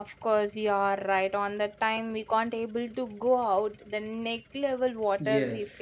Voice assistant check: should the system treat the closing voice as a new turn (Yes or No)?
Yes